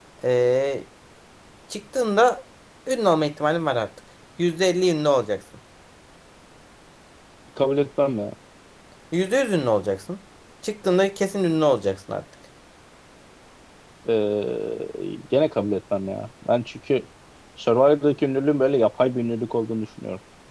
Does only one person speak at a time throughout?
Yes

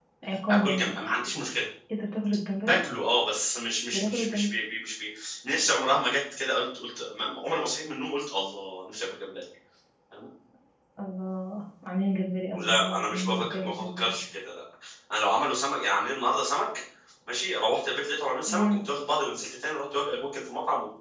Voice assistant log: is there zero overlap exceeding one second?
No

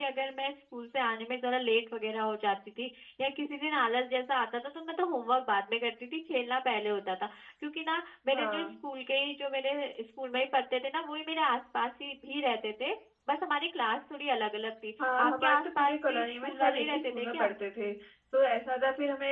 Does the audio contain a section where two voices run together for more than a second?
Yes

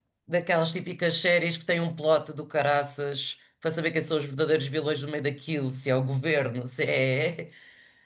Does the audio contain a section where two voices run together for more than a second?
No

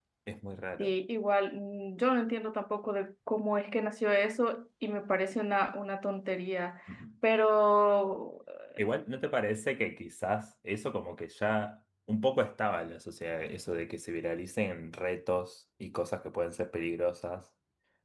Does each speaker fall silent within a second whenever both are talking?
Yes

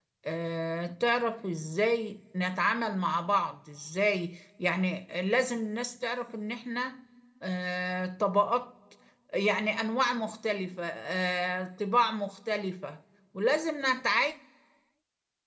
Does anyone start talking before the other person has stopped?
No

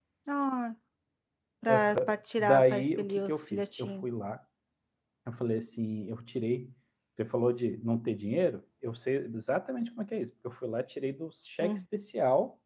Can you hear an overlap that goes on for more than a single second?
Yes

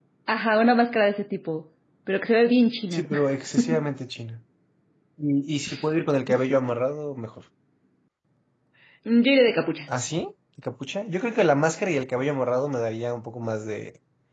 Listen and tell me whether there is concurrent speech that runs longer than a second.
No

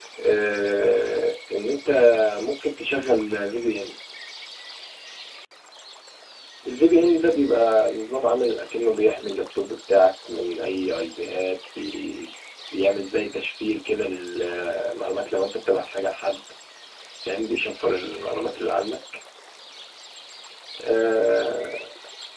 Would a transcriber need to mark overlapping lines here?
No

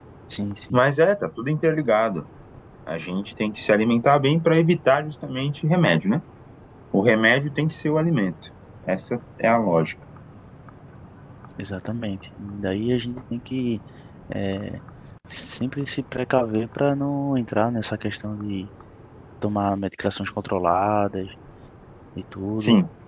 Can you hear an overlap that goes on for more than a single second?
No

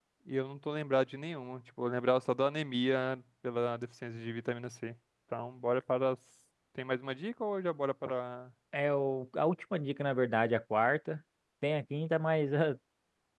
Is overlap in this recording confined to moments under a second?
Yes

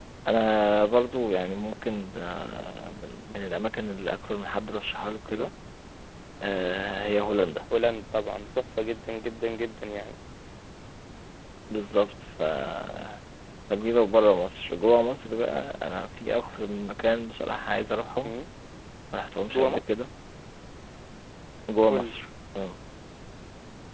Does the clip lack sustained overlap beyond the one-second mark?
Yes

